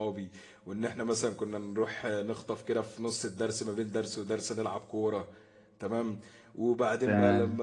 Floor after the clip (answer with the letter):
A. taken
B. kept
B